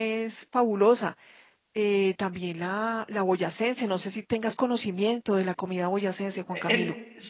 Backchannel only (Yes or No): No